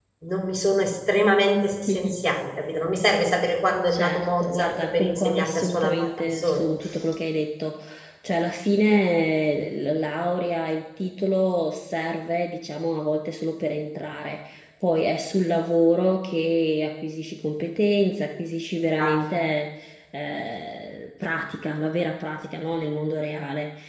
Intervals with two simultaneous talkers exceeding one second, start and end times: 3.9-6.7

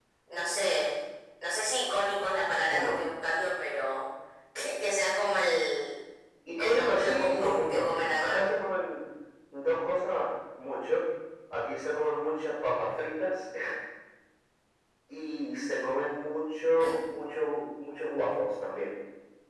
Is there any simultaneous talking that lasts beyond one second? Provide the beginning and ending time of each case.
6.6-8.4

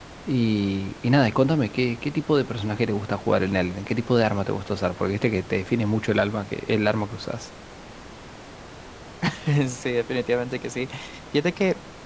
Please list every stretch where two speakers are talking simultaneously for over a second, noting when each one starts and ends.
none

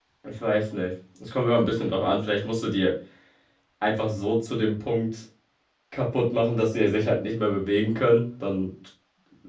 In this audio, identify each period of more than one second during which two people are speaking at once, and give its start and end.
none

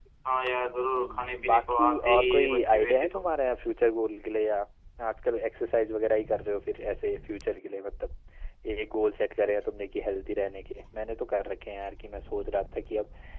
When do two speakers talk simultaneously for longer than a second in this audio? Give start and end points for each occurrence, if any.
1.0-3.2

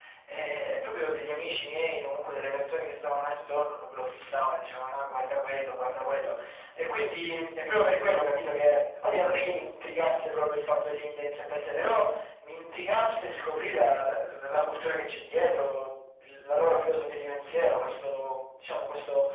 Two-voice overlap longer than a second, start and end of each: none

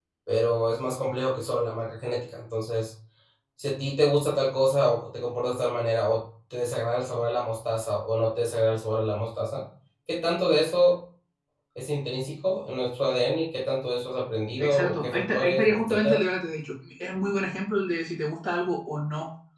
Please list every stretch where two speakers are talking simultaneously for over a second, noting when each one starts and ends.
14.6-16.2

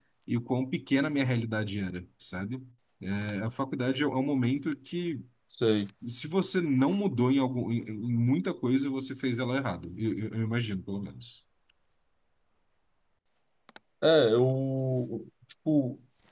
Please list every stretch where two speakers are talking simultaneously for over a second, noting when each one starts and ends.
none

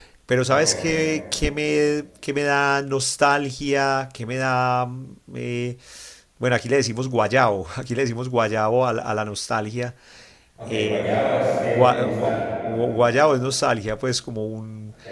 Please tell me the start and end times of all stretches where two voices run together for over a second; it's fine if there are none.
10.7-12.6

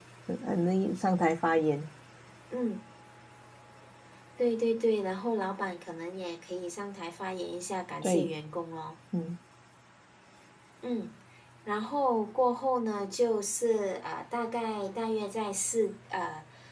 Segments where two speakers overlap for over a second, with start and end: none

